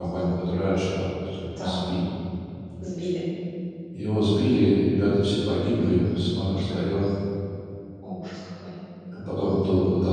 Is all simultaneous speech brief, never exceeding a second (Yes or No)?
Yes